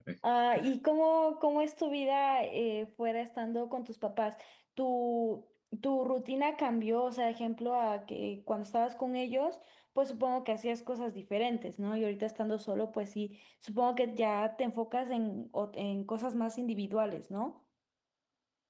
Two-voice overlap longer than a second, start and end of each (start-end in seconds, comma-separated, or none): none